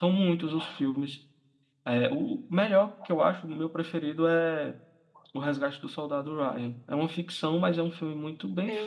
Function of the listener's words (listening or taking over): taking over